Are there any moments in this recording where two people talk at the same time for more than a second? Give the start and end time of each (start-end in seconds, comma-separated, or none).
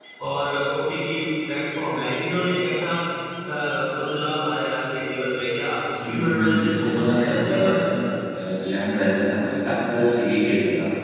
6.1-7.8